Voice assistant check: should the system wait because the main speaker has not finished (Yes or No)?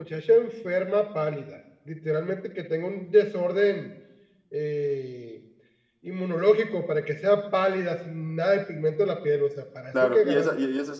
No